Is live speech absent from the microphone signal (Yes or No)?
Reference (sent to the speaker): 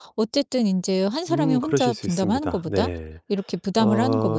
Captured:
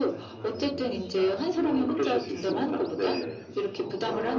No